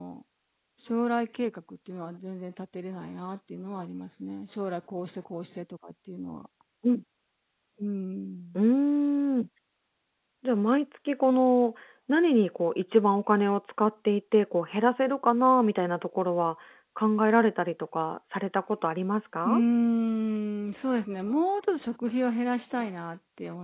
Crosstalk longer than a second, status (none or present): none